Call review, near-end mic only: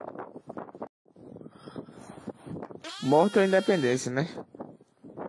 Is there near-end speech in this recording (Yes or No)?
Yes